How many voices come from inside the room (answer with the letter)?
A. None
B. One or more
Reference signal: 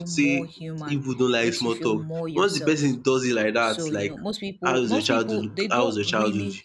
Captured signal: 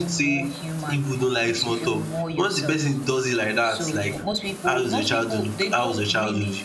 A